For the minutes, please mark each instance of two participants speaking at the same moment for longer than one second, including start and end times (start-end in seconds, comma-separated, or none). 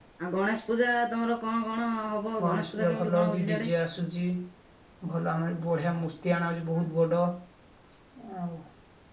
2.4-3.7